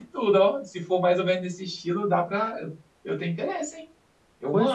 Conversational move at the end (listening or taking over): taking over